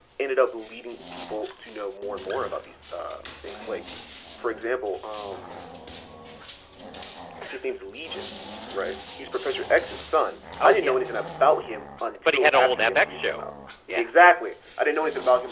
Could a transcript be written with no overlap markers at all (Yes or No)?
No